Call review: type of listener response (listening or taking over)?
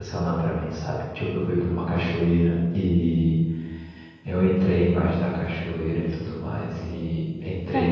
listening